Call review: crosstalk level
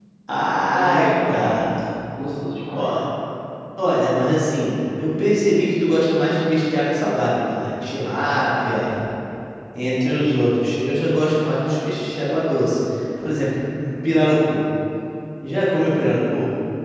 present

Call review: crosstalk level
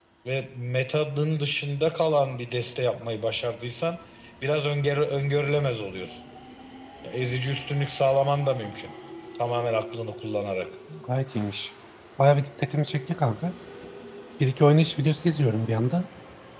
none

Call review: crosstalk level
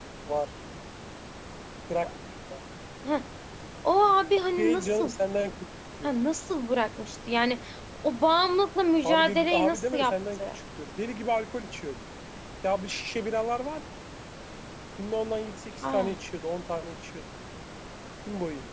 present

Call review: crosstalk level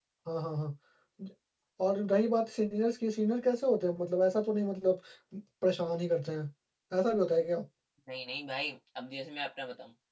none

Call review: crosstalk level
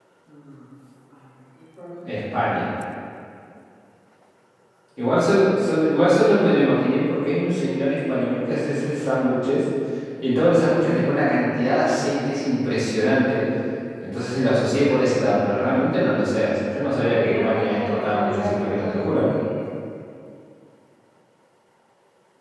present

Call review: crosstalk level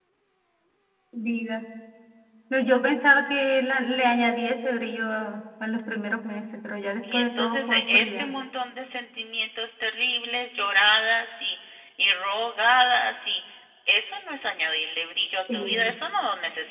present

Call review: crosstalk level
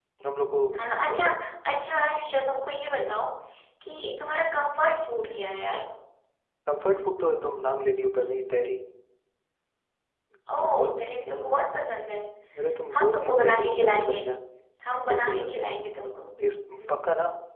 present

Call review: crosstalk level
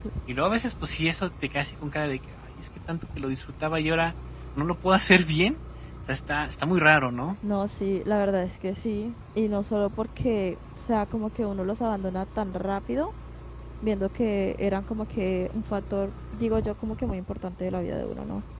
none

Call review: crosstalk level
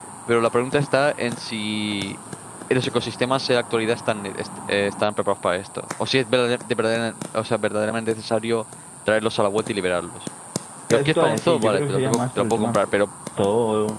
present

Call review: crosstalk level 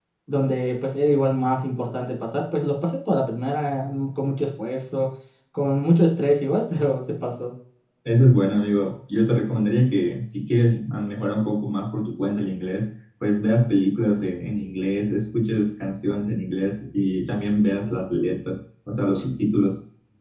none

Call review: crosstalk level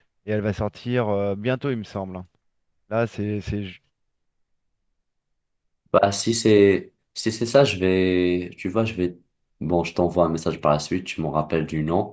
none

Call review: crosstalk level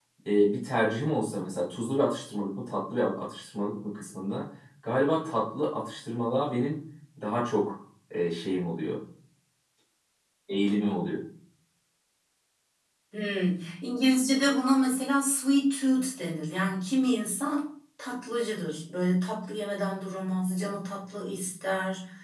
none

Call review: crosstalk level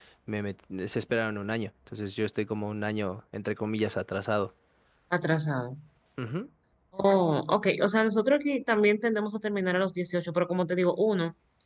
none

